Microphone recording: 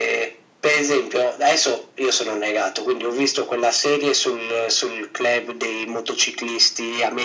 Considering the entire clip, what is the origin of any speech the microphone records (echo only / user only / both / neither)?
echo only